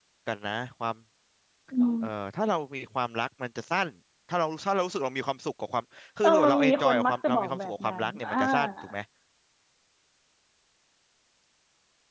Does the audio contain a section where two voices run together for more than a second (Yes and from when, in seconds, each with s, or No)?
Yes, from 6.2 s